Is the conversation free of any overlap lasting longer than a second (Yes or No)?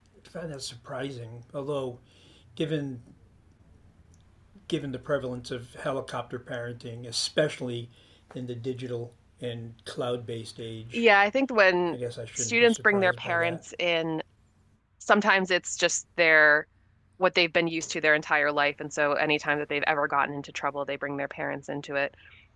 No